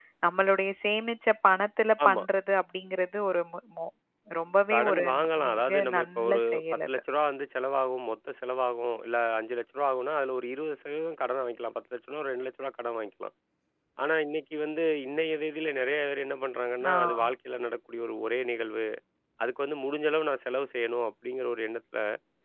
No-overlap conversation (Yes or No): No